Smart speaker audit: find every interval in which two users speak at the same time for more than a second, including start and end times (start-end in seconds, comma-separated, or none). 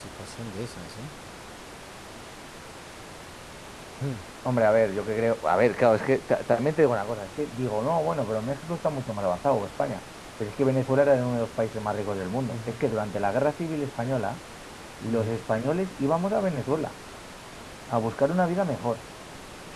none